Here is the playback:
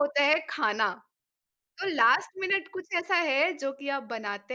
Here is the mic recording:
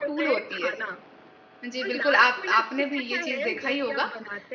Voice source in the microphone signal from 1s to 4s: both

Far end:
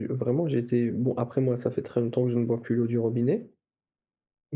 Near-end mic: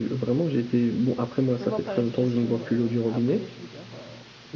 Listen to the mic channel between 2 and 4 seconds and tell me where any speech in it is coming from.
both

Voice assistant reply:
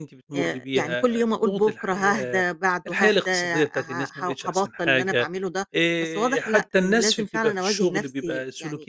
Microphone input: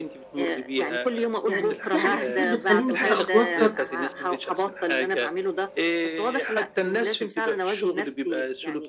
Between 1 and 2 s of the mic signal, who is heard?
both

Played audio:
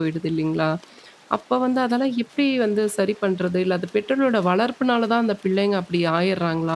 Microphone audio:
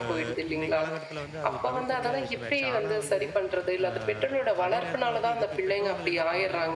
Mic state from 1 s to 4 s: both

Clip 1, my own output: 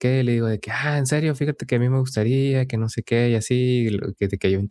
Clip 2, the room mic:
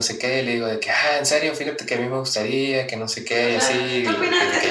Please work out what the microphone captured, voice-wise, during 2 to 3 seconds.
echo only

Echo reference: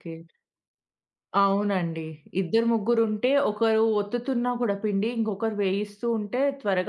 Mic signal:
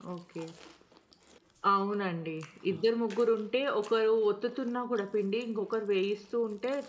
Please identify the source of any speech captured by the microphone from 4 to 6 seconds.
echo only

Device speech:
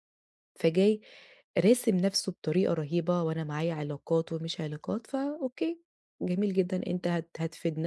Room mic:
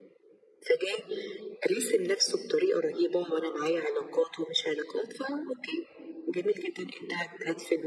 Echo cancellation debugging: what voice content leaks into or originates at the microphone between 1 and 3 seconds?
echo only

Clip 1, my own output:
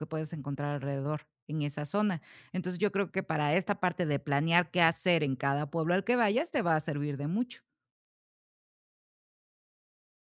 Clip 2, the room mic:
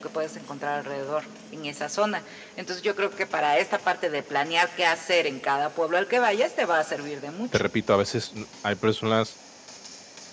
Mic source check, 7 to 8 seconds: both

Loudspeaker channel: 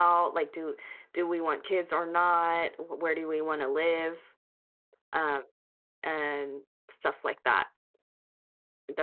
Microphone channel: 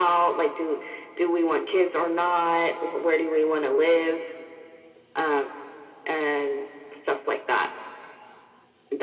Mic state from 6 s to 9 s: echo only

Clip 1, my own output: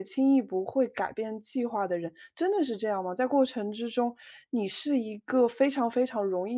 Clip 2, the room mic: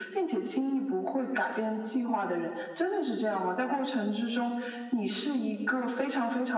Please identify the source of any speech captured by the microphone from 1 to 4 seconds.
echo only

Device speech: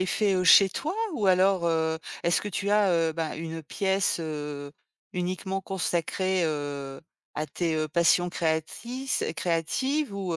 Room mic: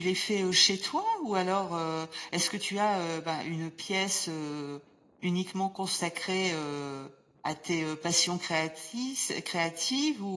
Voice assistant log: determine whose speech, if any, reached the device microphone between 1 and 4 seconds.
echo only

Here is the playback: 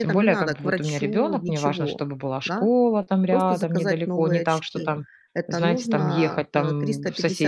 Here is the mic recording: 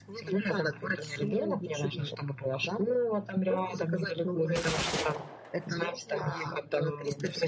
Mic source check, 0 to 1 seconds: echo only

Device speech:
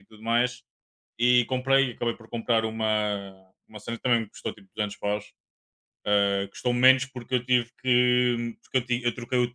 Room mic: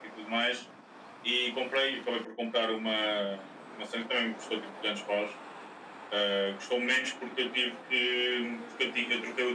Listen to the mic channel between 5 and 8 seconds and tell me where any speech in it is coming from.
echo only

